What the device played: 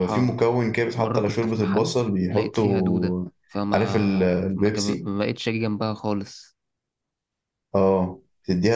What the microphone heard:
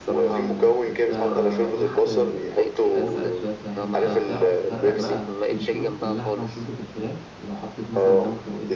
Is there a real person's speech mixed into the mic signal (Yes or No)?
Yes